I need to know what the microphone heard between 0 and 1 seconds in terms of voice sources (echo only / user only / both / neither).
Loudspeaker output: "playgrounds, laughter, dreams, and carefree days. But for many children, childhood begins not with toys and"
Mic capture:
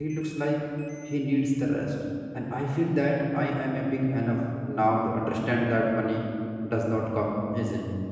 user only